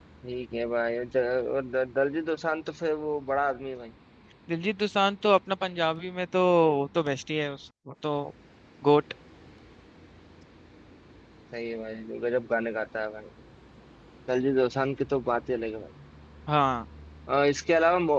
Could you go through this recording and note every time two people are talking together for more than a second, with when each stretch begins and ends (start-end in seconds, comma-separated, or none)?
none